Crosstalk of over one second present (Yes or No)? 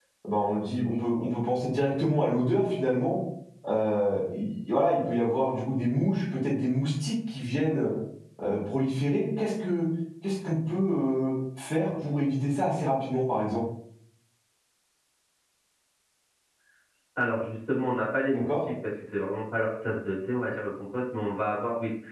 No